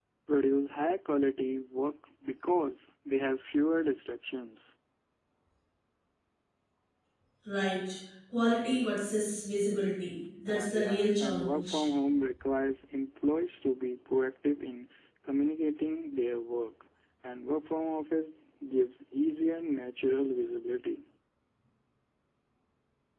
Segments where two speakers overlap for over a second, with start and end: 10.5-11.9

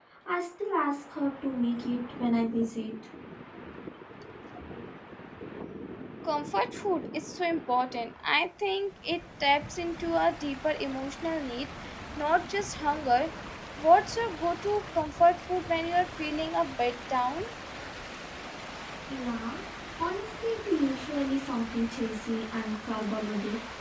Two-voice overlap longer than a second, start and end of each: none

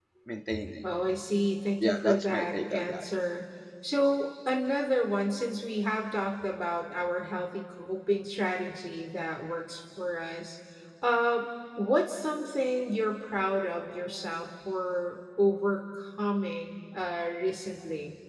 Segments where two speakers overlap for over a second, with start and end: 1.8-3.0

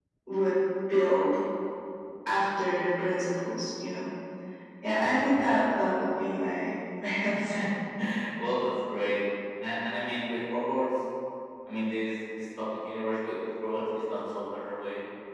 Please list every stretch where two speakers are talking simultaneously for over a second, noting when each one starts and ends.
none

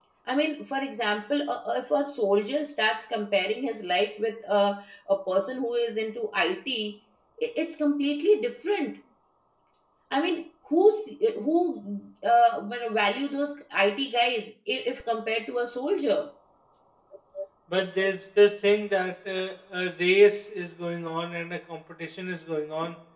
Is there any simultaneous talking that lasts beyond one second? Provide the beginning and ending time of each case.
none

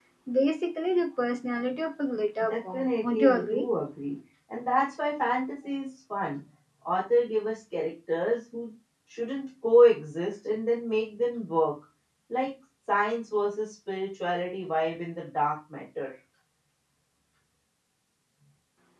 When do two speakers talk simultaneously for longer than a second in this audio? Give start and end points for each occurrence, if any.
2.4-3.7

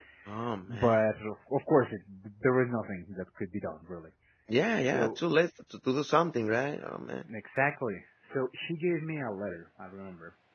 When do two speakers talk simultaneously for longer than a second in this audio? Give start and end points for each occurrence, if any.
none

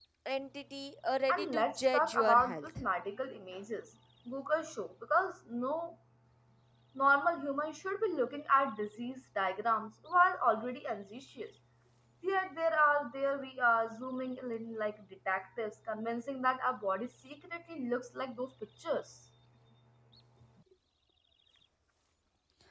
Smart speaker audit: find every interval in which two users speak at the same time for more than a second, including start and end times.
1.3-2.7

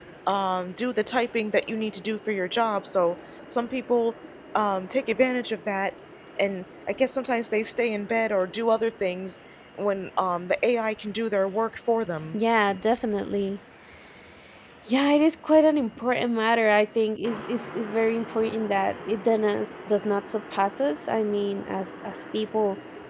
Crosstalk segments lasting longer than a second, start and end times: none

